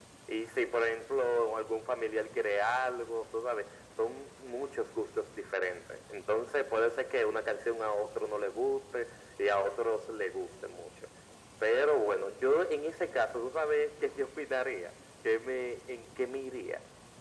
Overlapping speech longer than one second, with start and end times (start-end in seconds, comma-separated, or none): none